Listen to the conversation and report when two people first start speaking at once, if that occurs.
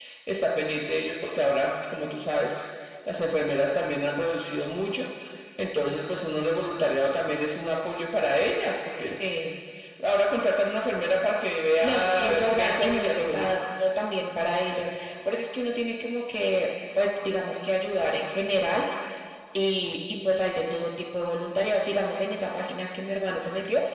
11.8 s

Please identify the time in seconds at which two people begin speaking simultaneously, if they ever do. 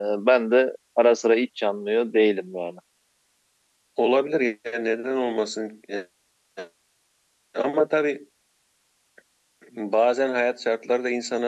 none

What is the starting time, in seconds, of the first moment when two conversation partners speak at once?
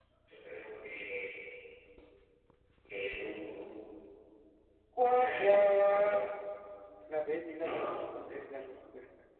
5.0 s

